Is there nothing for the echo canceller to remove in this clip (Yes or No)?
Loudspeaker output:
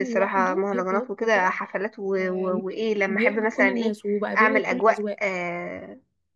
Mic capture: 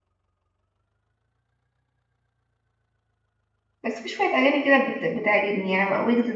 Yes